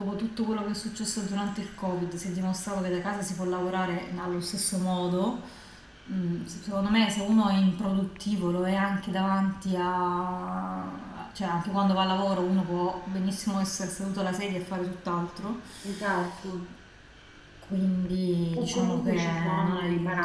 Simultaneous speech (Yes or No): Yes